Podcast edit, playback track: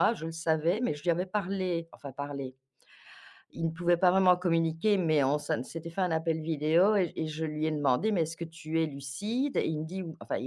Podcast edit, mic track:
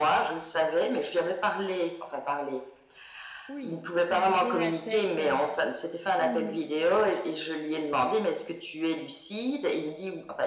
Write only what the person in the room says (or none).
Oui, te vider la tête, heu, mmh